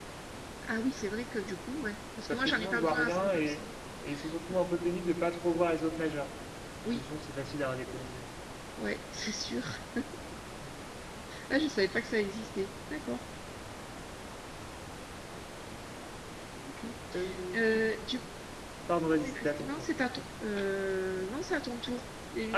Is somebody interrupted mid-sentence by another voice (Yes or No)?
Yes